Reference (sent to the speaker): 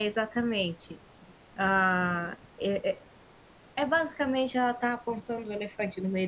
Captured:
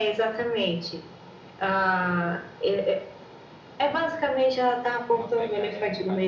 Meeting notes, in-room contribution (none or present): present